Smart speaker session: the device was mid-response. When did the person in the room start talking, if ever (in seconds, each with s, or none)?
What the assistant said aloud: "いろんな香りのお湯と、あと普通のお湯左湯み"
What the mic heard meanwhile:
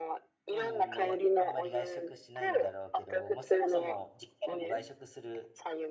0.4 s